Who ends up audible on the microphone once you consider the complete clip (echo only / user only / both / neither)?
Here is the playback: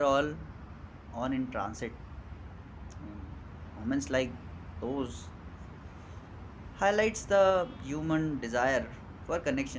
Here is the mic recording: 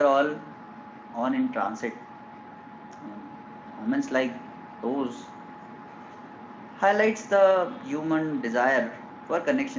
echo only